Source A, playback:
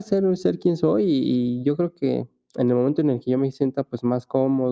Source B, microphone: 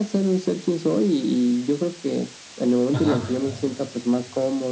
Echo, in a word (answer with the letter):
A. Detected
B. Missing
A